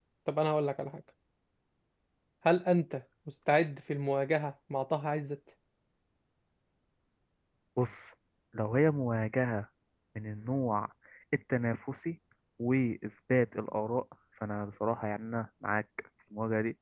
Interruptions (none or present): none